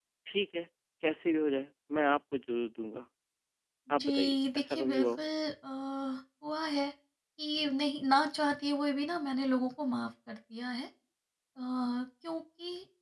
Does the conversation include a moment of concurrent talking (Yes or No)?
Yes